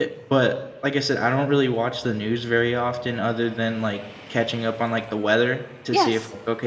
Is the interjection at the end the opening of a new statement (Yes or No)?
No